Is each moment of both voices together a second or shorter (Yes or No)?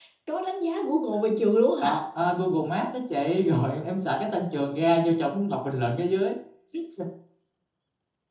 Yes